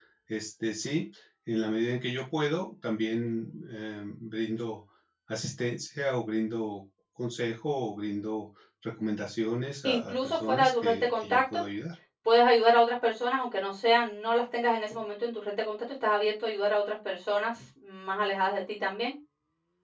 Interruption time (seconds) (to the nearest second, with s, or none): 10 s